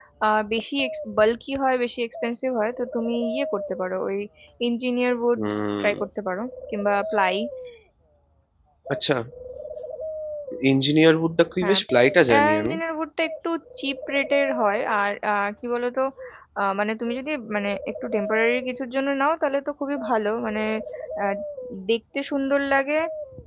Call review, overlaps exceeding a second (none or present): none